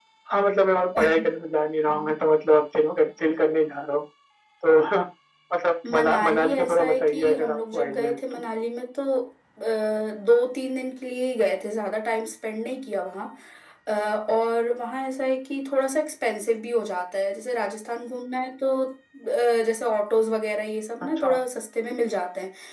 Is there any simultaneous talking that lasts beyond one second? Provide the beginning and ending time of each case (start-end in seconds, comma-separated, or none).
5.9-8.2